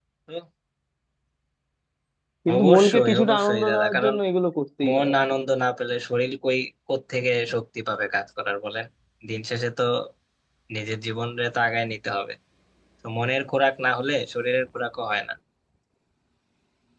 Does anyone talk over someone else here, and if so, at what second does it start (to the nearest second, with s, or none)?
3 s